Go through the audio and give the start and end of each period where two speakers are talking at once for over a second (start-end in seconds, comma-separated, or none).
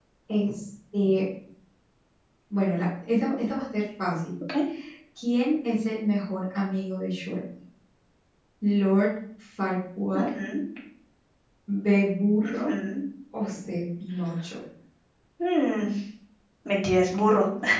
none